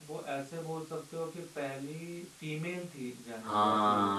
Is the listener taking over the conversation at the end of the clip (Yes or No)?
Yes